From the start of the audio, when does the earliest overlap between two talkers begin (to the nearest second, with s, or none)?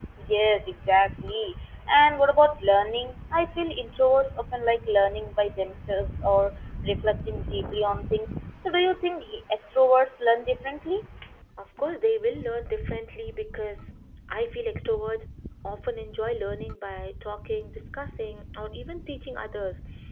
none